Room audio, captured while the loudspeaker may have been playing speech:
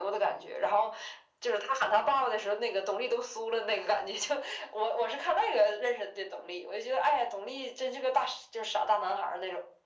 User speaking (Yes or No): No